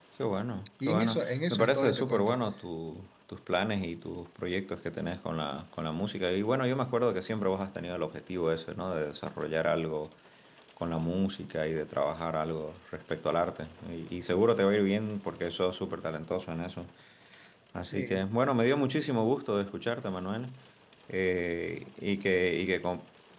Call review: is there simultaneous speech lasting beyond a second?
Yes, from 0.9 s

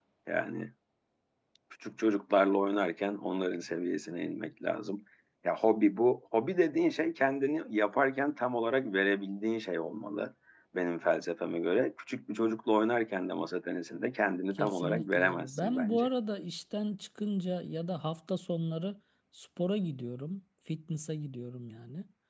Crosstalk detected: Yes, from 14.6 s

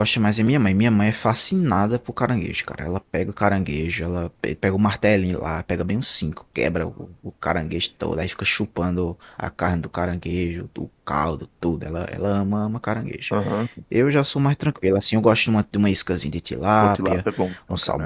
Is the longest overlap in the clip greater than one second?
No

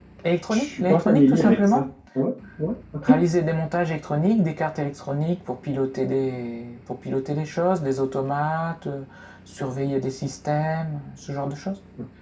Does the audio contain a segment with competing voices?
Yes, from 0.5 s

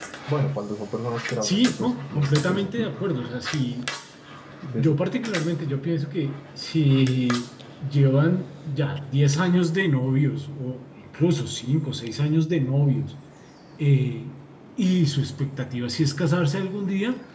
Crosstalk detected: Yes, from 1.4 s

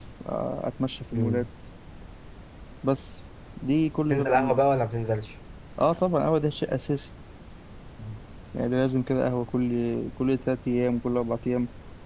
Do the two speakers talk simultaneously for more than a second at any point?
No

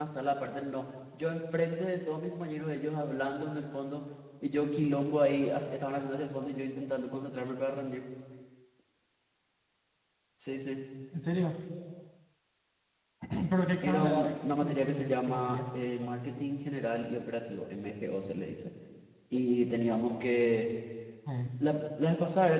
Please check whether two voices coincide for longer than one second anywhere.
Yes, from 13.8 s

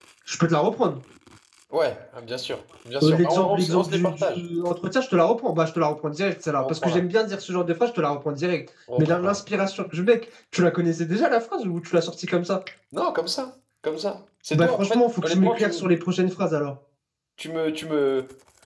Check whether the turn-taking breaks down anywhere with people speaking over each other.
Yes, from 3.0 s

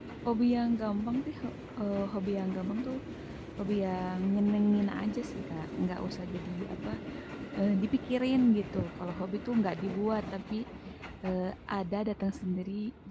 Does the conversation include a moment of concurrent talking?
No

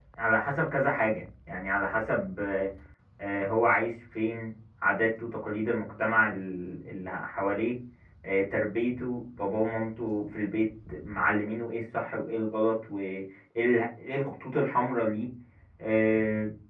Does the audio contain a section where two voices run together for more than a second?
No

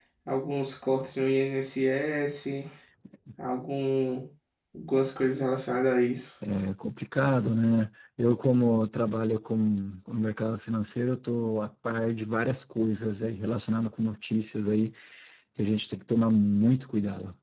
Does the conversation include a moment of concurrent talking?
No

